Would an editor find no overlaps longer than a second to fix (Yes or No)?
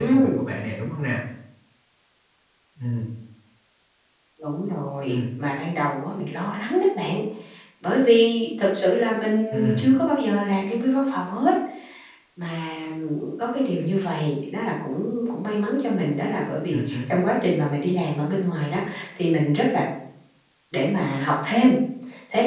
Yes